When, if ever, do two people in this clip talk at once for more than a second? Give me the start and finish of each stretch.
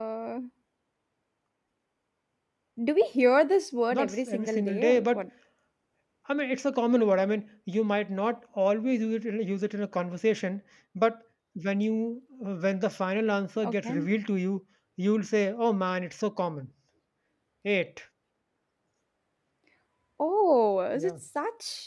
3.9-5.2

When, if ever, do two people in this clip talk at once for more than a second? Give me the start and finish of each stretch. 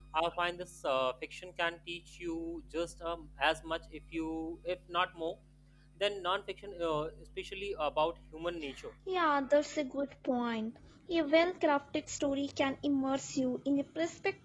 none

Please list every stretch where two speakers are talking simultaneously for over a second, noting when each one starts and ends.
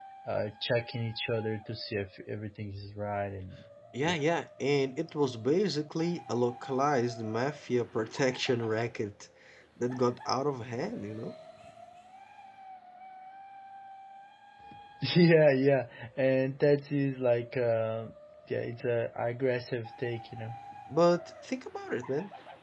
none

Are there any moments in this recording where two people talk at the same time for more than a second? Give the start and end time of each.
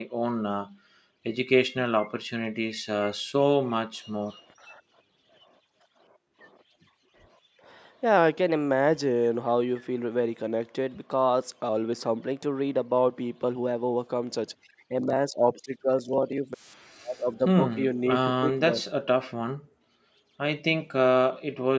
17.4-18.8

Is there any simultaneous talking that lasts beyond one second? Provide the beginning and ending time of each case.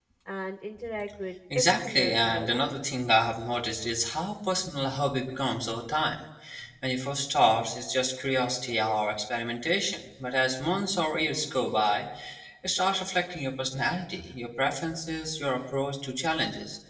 1.5-2.8

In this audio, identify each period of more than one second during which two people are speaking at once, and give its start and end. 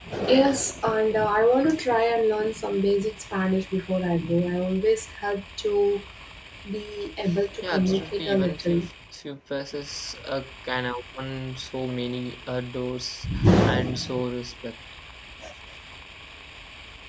7.6-8.9

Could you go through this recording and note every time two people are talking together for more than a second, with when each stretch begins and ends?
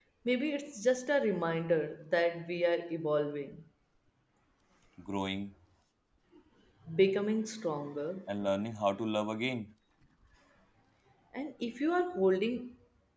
none

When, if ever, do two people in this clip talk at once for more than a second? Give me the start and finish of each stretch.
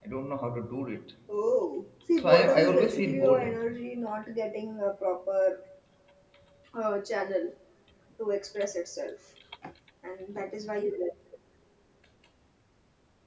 2.2-3.5

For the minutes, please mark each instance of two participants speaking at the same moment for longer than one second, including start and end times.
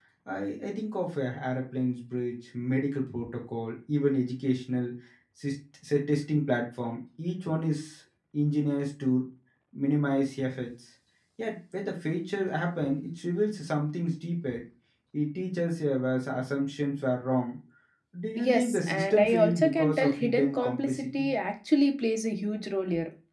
18.4-21.3

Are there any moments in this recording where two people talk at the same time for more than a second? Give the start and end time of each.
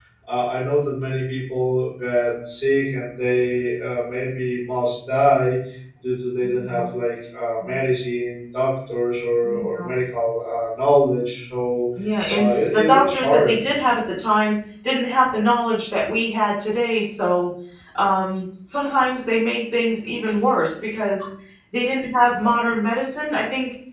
12.3-13.6

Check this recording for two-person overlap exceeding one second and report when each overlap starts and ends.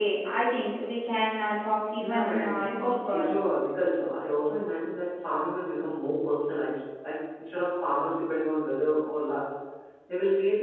2.0-3.3

